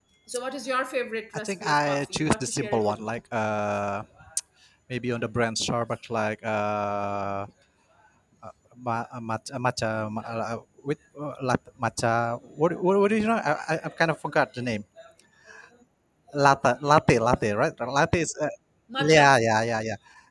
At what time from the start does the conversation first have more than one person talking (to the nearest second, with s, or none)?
1 s